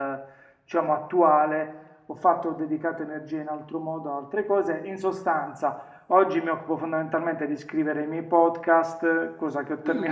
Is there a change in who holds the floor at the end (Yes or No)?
No